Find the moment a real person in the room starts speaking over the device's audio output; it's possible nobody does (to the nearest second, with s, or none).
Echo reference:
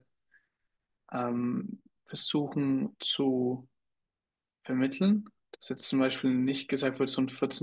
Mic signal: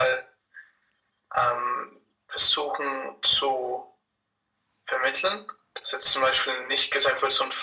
none